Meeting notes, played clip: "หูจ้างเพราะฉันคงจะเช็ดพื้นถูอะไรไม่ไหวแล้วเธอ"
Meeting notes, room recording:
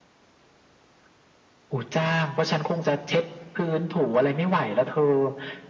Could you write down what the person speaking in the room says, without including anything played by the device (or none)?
none